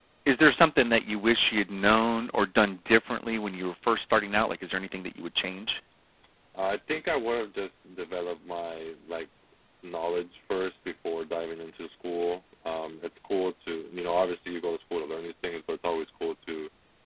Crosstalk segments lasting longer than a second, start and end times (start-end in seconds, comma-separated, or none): none